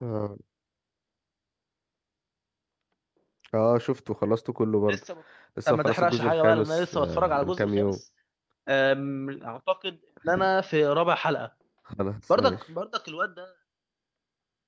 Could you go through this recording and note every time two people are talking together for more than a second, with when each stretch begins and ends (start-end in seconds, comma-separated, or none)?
5.7-7.9